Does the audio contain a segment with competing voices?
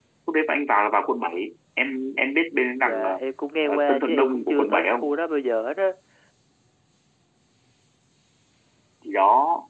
Yes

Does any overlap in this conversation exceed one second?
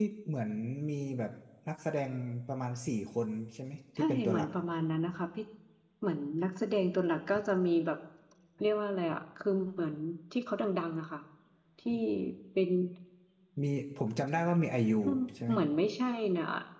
No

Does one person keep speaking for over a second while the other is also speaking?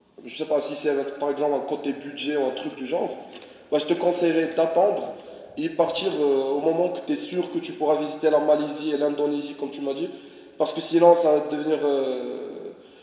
No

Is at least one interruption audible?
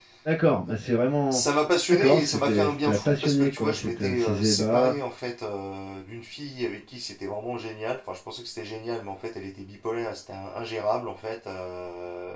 Yes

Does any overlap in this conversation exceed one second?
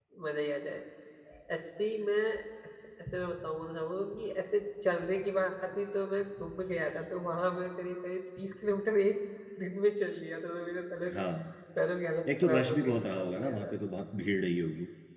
Yes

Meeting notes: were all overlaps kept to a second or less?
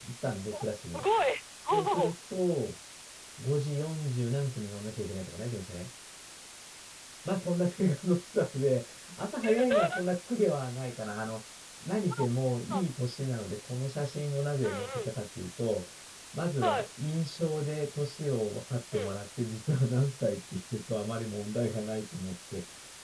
Yes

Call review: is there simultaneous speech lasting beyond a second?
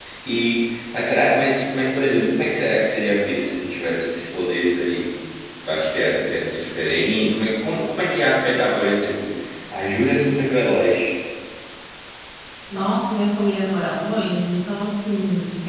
No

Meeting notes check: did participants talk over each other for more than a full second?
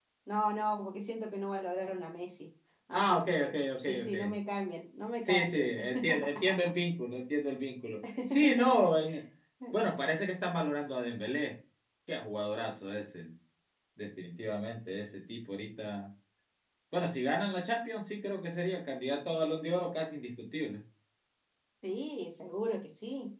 Yes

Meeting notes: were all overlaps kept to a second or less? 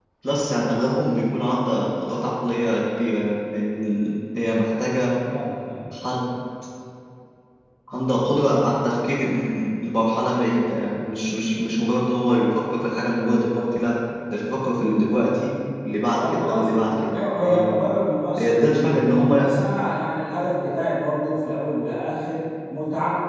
No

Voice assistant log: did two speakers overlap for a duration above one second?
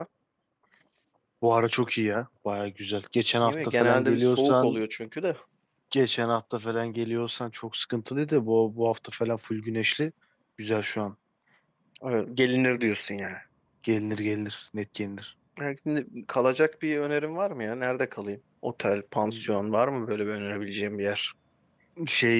Yes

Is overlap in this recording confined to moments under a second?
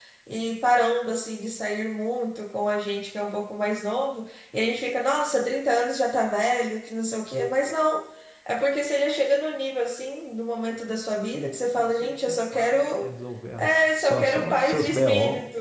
No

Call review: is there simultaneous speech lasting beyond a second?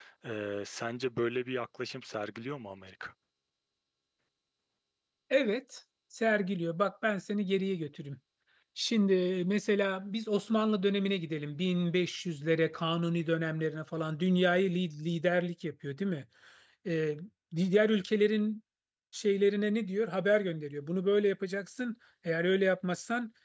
No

